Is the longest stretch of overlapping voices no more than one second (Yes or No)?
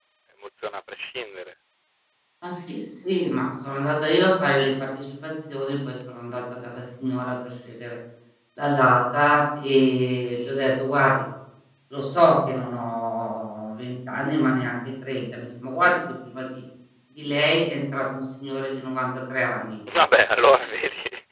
Yes